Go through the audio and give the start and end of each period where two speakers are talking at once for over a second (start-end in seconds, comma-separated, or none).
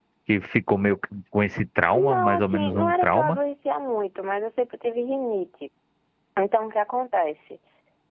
1.9-3.4